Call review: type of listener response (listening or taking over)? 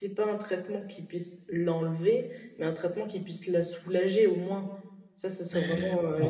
taking over